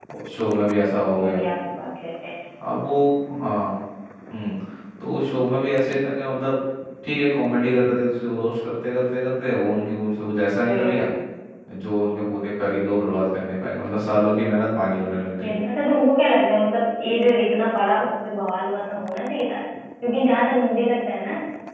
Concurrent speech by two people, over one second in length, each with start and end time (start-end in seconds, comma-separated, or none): none